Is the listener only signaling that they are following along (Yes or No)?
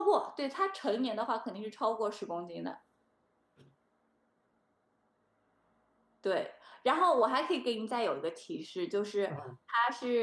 Yes